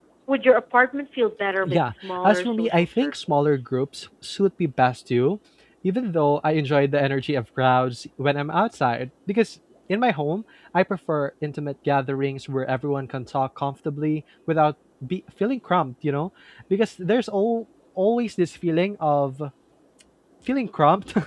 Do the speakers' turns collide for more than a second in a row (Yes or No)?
Yes